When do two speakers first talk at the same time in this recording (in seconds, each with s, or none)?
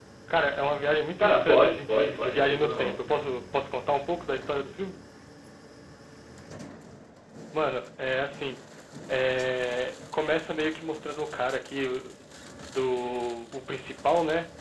1.2 s